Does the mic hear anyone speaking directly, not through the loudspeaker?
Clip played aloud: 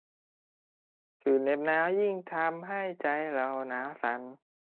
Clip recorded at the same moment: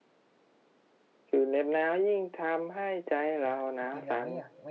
Yes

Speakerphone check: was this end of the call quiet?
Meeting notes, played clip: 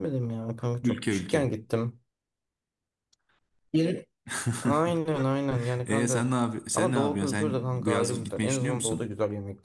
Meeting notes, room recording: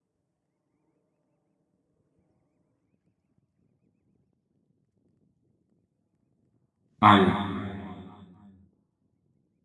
No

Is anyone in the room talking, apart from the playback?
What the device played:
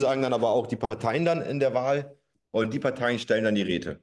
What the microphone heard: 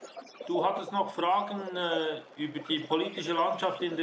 Yes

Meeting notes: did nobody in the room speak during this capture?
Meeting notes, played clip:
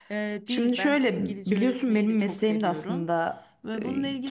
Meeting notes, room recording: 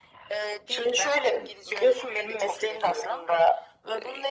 Yes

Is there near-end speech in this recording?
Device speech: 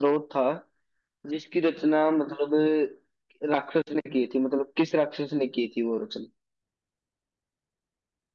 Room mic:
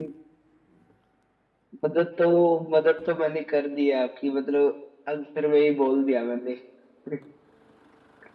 Yes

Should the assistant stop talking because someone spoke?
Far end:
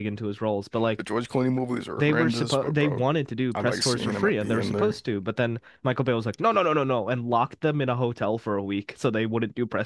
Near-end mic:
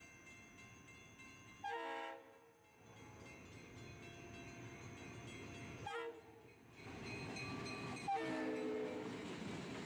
No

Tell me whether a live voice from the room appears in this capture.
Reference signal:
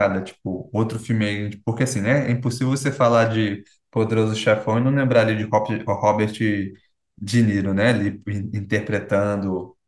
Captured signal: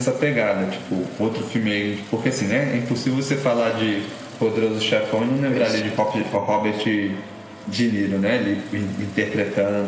Yes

